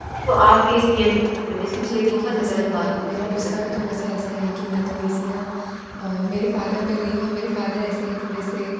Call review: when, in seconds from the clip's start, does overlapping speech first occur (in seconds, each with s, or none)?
1.8 s